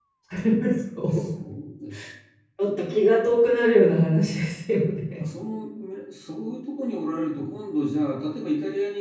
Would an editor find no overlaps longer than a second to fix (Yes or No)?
Yes